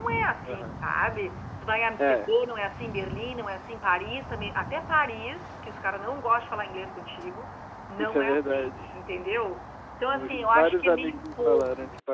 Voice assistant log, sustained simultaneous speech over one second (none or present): present